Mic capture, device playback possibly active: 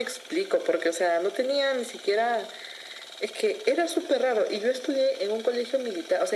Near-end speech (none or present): none